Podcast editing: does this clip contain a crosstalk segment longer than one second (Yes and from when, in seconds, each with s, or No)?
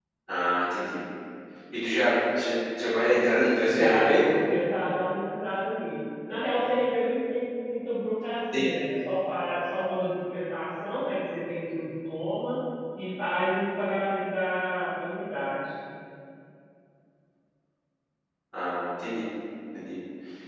No